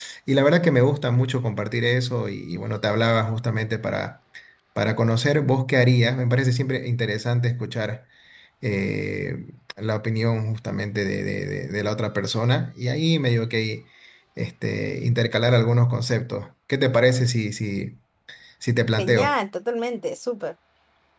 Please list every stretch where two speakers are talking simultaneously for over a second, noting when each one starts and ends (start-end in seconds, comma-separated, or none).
none